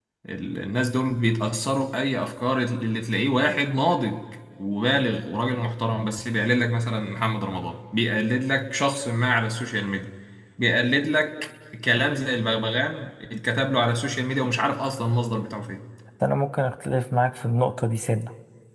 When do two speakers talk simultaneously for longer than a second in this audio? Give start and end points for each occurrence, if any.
none

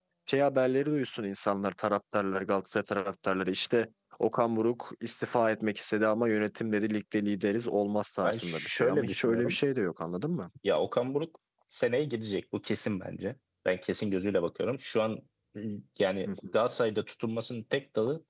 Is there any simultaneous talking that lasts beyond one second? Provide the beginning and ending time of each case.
8.2-9.6

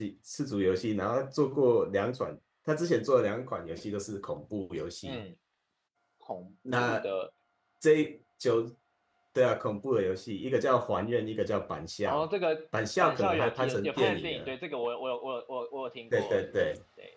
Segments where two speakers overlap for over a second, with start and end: 13.0-14.5

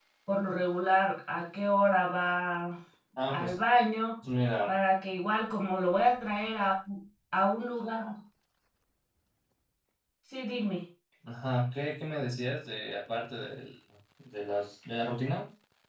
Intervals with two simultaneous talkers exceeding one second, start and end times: none

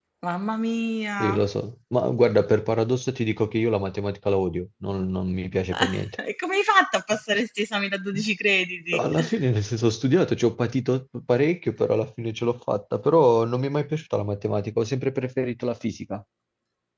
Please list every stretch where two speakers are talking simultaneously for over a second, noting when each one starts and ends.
none

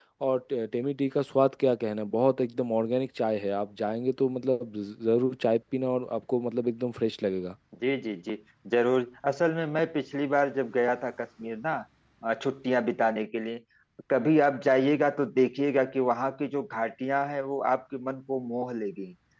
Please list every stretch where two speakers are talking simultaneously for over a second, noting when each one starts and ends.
none

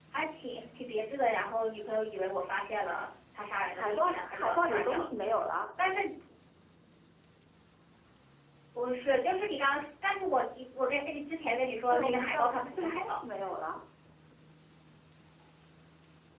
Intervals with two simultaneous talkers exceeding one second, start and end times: 3.7-5.1, 11.9-13.2

